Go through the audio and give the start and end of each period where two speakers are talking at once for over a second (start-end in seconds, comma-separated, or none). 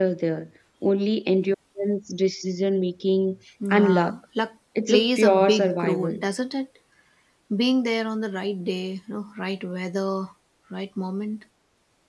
4.9-6.2